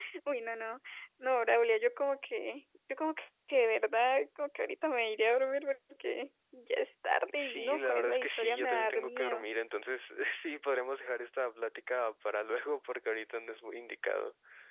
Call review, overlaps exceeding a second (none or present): present